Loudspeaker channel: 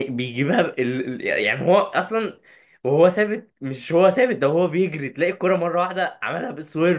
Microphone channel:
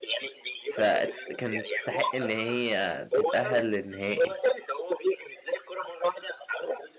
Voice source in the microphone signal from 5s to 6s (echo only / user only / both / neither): echo only